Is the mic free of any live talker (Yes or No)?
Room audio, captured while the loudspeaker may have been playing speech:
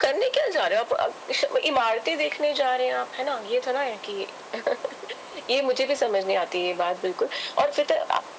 Yes